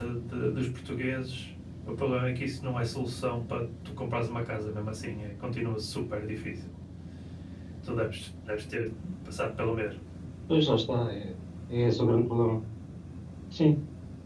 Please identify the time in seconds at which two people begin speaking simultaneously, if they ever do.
none

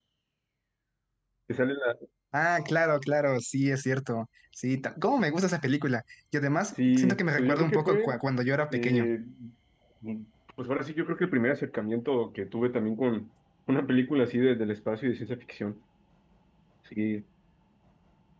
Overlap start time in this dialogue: 7 s

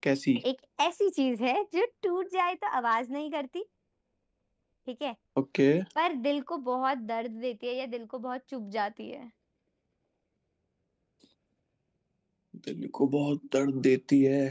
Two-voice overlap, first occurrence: none

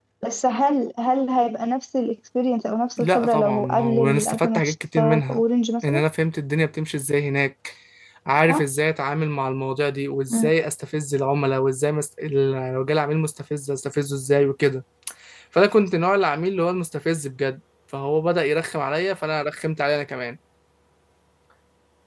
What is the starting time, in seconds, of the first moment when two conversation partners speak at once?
3 s

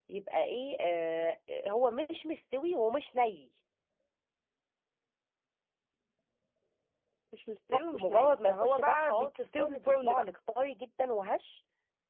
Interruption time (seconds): 8 s

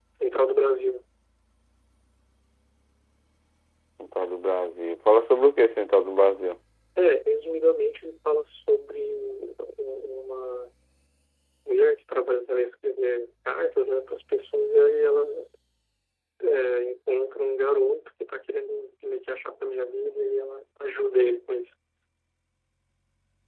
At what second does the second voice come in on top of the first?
none

